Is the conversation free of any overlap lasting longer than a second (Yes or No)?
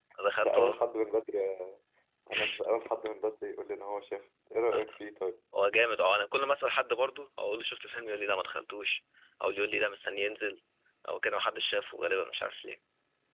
Yes